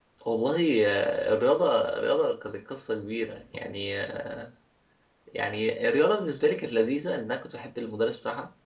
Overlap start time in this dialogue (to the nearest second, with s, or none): none